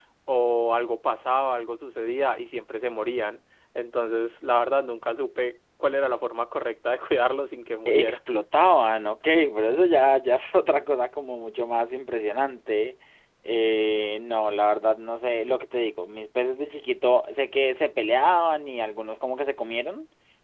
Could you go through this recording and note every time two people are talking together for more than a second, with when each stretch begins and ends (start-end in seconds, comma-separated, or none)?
none